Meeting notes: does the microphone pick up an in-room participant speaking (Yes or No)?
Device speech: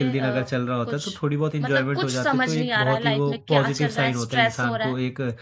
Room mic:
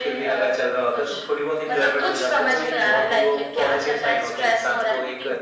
Yes